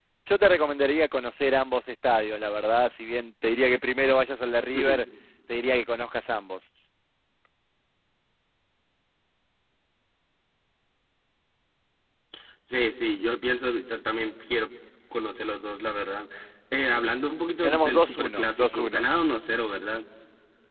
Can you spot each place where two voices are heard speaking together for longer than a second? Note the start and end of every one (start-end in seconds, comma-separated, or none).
17.6-19.0